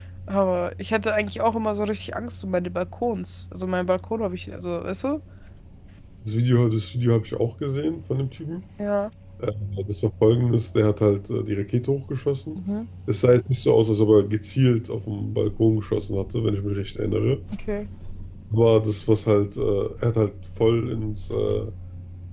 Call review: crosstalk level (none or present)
none